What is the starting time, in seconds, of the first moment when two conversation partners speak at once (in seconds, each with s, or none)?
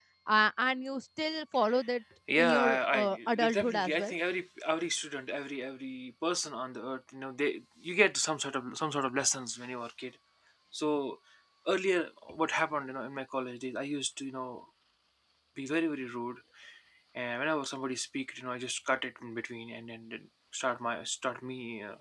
2.3 s